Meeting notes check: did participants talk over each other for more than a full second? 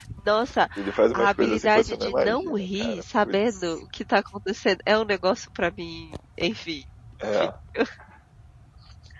Yes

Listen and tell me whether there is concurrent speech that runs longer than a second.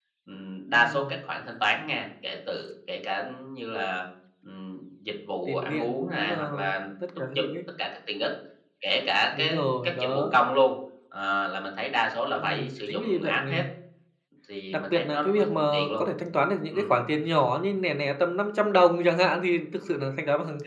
Yes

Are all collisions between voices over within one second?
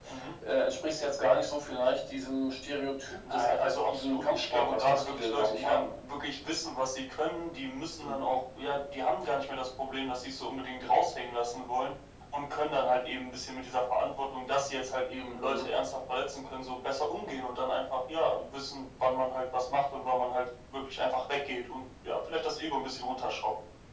No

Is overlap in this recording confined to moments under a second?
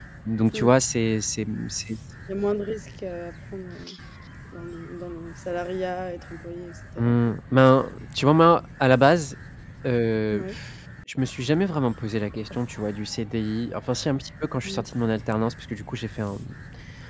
Yes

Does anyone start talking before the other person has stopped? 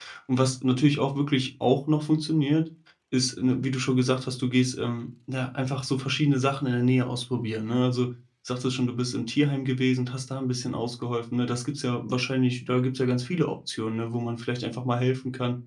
No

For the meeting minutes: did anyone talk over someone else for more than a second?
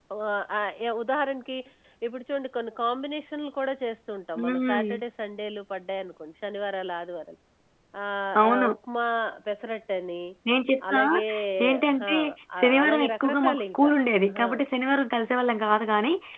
Yes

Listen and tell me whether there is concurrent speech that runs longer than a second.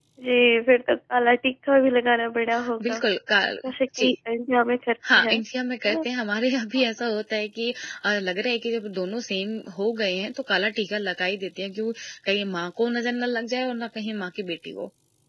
No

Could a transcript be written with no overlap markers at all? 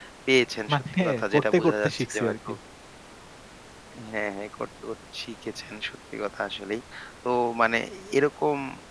No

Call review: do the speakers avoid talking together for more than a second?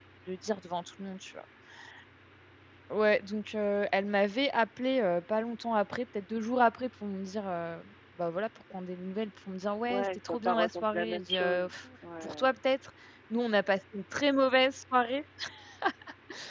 No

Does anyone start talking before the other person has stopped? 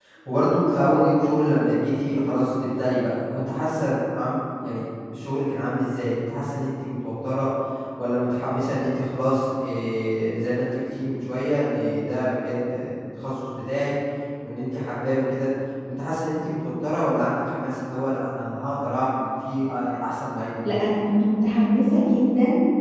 No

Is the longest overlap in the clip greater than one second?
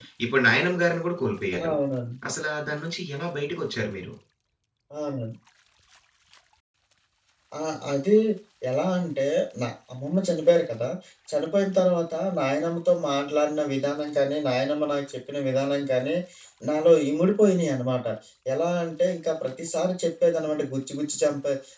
No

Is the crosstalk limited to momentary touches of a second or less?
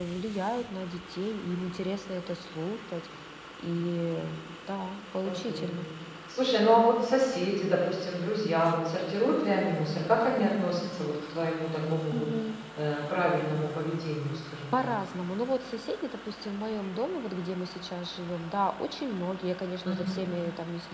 Yes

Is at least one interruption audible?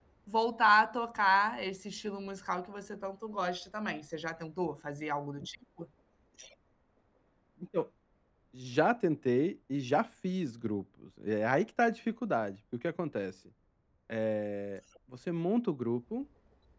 No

